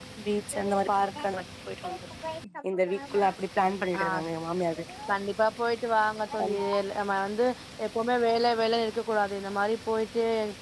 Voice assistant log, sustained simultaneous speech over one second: none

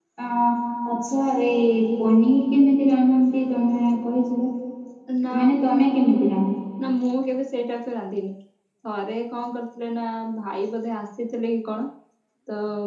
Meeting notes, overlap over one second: none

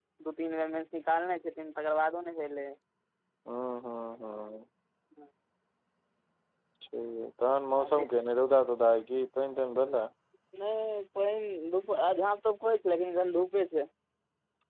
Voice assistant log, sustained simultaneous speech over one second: none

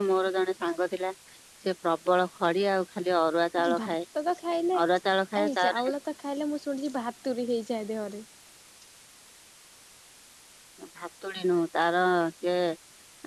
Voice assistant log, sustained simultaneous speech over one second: none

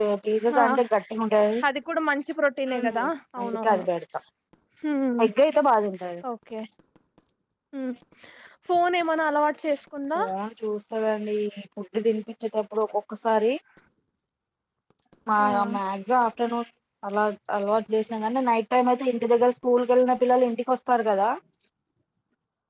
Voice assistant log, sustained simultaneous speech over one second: none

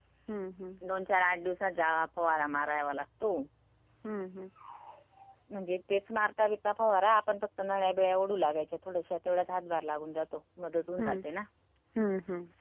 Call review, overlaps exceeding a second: none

